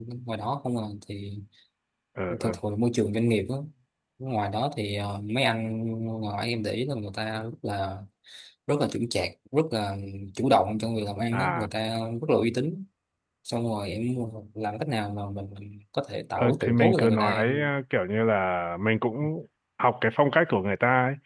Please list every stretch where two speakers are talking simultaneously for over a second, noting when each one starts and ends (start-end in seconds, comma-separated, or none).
16.4-17.7